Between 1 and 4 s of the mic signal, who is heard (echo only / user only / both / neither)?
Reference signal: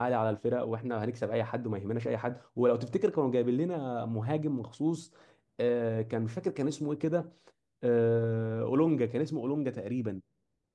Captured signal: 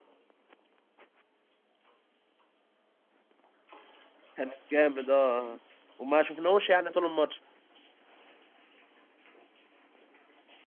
neither